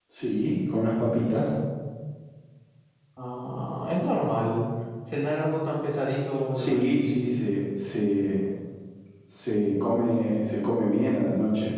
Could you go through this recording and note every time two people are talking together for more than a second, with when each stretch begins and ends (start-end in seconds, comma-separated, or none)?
none